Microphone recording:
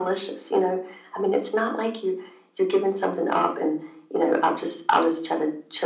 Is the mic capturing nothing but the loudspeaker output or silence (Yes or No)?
Yes